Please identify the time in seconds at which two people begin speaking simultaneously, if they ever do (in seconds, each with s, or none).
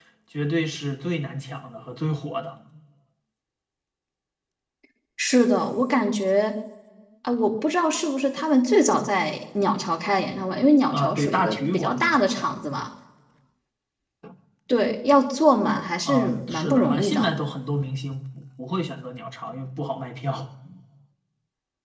10.9 s